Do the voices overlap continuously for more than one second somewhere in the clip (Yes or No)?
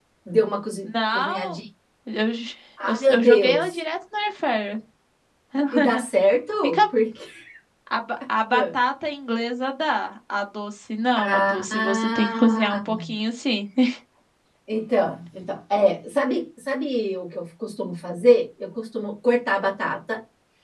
Yes